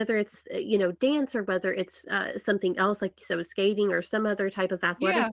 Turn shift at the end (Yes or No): No